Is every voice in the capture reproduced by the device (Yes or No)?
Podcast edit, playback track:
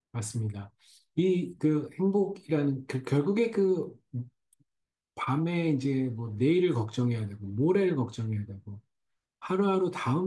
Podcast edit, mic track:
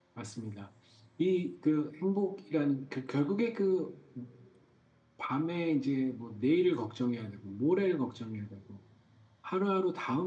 Yes